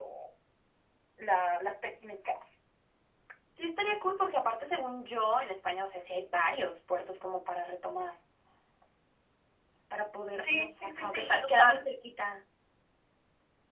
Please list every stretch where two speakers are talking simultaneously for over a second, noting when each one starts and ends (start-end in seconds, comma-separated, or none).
10.5-11.9